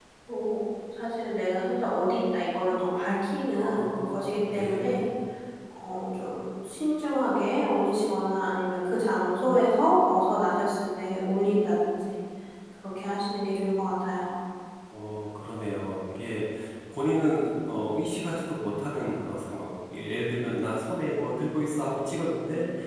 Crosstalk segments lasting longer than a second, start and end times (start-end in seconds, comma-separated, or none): 3.5-5.0